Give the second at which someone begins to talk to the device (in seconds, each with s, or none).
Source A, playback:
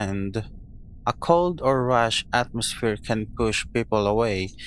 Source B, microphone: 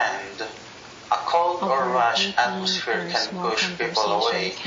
1.6 s